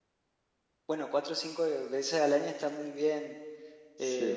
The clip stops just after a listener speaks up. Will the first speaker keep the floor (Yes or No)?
Yes